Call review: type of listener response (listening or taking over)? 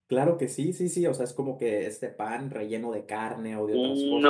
taking over